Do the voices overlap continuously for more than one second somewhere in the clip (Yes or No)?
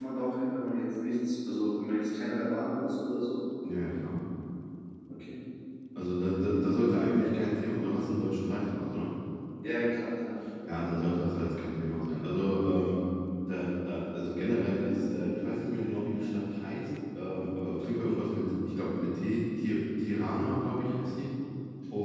No